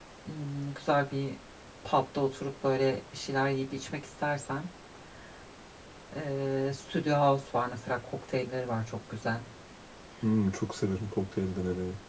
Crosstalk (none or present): none